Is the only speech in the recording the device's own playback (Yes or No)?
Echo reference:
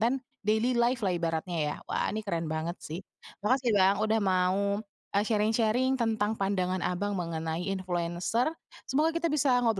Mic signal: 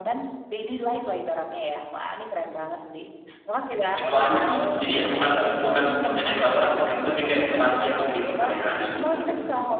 No